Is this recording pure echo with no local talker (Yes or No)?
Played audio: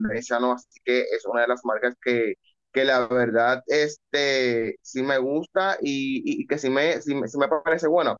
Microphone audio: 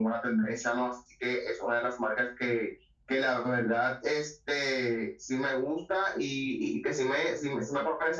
Yes